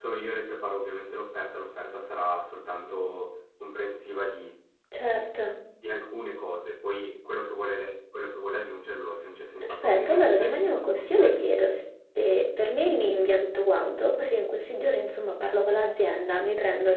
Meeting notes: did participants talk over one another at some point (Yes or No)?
Yes